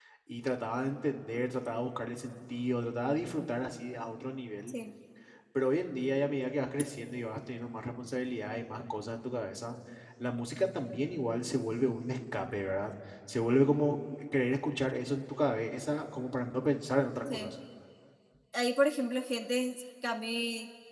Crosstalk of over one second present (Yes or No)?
No